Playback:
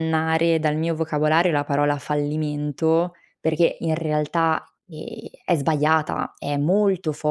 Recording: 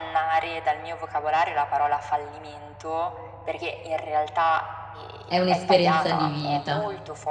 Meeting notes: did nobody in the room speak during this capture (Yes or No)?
No